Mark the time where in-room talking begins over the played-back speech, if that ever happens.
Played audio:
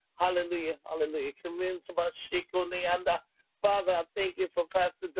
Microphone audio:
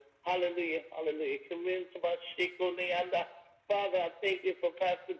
none

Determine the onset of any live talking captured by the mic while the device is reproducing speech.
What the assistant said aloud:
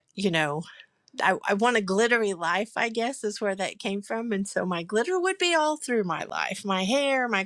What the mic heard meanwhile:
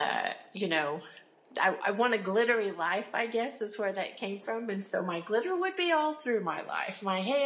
none

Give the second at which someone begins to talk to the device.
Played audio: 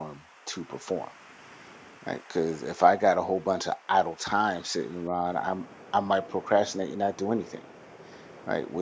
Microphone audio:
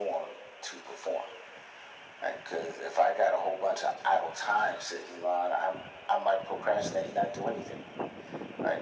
none

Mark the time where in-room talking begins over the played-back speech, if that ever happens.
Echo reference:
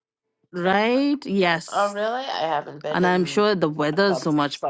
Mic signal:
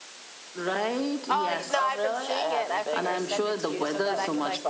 1 s

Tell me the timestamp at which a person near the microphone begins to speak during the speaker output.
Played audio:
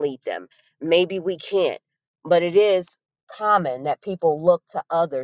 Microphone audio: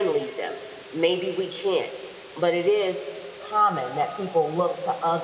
none

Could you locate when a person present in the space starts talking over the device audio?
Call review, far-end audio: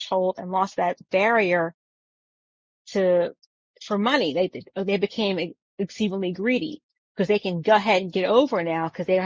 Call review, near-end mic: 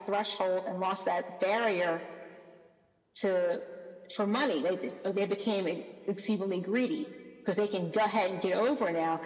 none

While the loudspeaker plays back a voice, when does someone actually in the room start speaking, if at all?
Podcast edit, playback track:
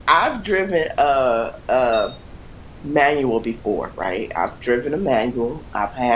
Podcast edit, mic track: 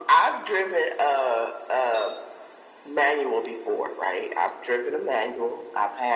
none

